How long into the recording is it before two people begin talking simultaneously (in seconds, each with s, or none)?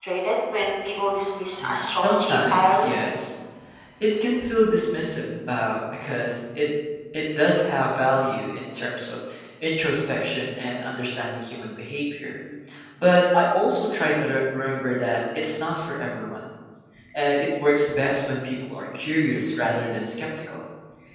1.6 s